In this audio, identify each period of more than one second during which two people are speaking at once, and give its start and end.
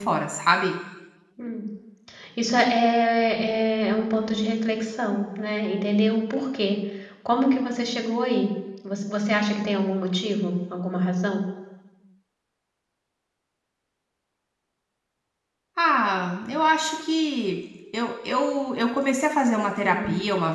none

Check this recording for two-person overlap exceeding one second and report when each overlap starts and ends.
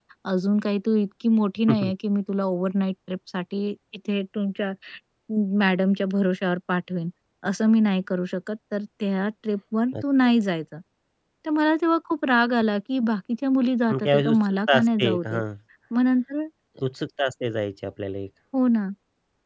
13.9-15.4

